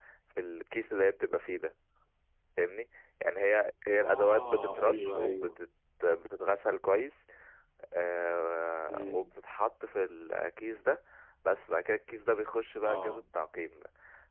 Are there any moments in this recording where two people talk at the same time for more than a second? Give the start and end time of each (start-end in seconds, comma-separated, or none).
4.0-5.6